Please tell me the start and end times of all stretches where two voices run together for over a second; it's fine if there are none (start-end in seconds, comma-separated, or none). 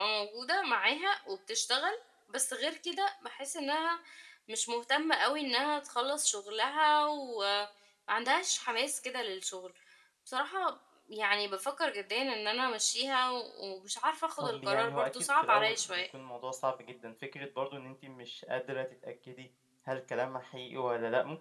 14.4-16.0